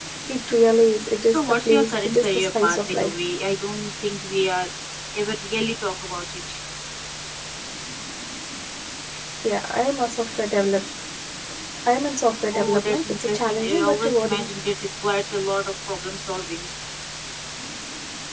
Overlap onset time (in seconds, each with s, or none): 1.3 s